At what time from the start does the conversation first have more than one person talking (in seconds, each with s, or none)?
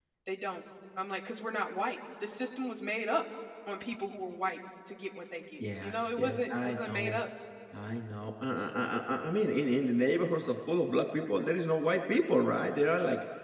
5.6 s